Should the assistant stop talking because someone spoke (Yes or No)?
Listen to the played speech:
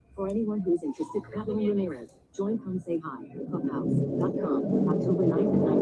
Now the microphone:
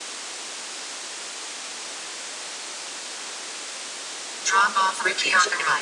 Yes